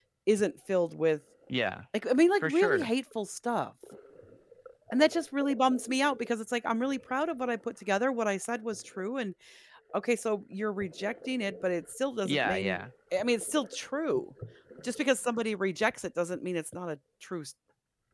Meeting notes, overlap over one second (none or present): none